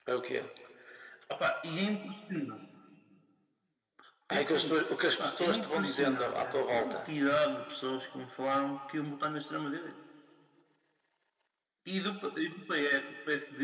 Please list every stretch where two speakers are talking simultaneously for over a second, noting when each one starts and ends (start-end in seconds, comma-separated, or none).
5.2-7.0